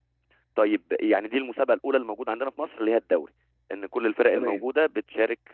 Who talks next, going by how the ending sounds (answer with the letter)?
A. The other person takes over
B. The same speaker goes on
B